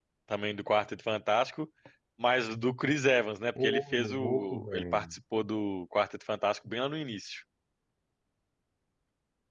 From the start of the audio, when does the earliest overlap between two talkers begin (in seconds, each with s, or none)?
3.6 s